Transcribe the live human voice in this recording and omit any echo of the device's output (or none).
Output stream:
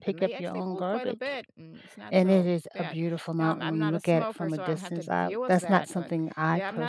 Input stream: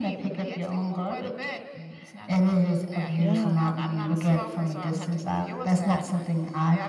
Yeah.